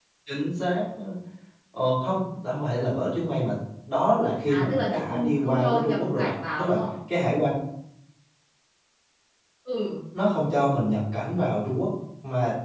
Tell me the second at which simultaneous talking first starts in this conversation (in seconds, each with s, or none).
4.5 s